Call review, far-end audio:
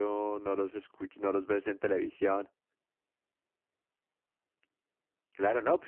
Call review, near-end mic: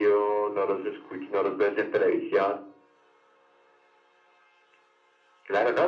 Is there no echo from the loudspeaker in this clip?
No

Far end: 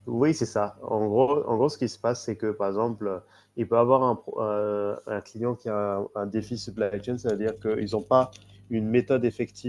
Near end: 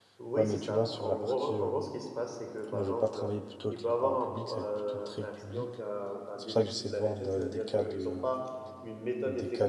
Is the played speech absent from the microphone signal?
No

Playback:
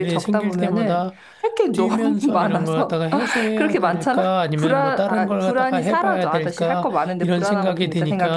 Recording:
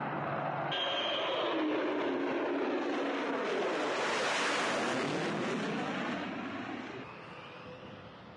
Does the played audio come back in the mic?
No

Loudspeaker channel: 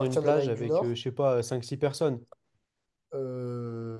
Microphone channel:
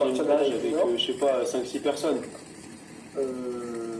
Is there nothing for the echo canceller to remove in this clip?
No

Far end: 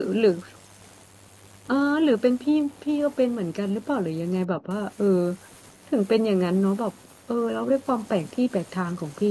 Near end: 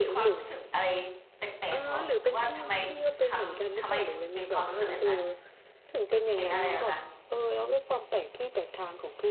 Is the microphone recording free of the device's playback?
No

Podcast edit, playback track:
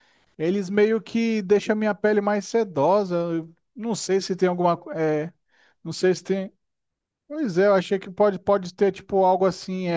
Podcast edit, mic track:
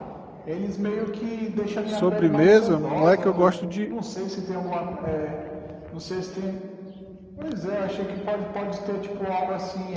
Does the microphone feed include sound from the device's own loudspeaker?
Yes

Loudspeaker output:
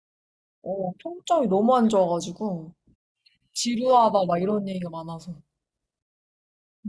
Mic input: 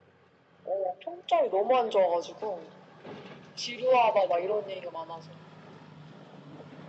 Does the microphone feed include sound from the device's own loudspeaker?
Yes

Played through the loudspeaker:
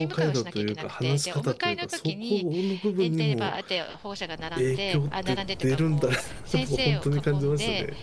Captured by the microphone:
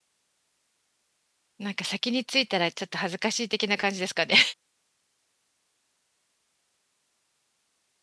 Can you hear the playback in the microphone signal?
No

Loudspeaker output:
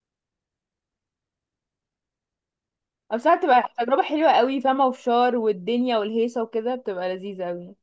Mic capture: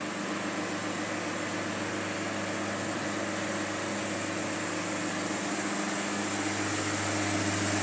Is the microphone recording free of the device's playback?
Yes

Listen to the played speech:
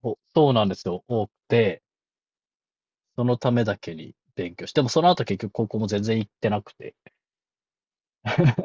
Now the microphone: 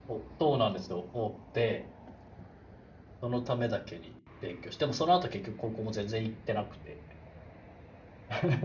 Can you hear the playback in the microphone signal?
Yes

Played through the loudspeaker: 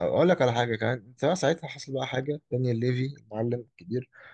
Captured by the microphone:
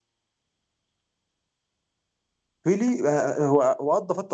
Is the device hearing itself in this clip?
No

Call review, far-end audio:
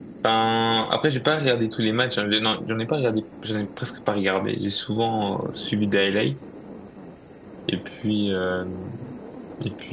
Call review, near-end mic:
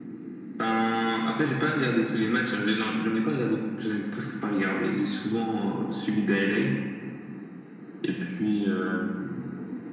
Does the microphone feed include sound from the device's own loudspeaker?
Yes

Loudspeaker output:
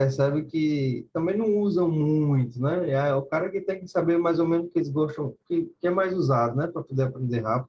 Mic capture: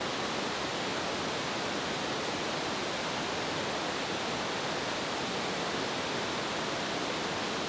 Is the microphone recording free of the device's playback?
Yes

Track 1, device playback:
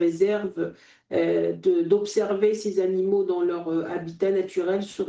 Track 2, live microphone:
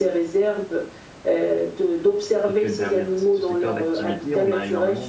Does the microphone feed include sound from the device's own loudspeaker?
Yes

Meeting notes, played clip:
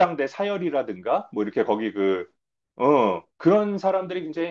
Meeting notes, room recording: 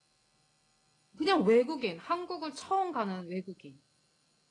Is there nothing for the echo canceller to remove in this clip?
Yes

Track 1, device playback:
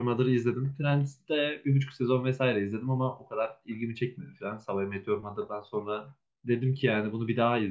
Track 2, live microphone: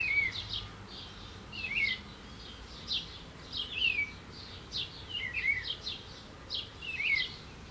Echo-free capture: Yes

